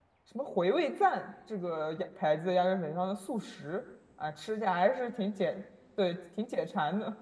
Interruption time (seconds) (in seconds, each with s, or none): none